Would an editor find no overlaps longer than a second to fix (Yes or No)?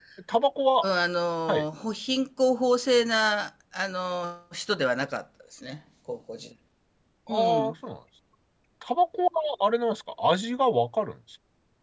Yes